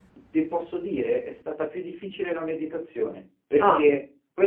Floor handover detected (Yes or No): No